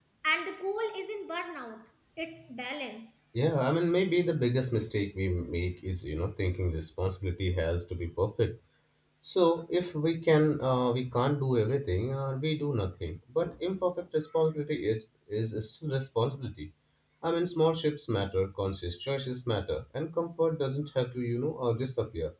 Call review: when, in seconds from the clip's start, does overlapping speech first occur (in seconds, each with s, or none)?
none